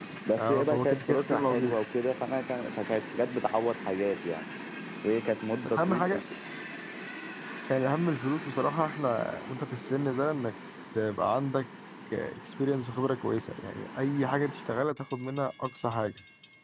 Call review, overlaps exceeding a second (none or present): present